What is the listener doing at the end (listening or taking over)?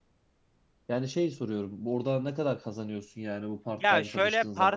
taking over